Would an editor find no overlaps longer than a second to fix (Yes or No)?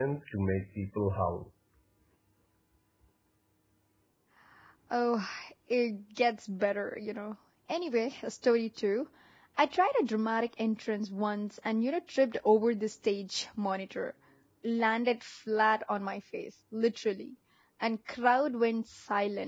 Yes